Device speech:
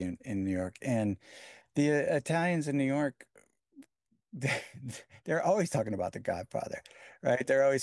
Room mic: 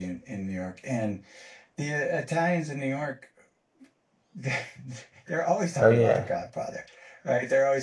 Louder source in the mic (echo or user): user